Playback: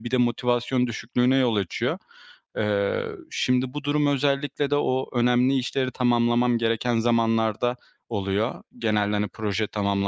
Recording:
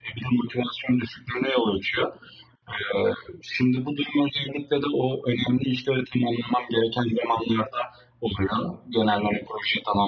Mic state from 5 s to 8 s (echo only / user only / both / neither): echo only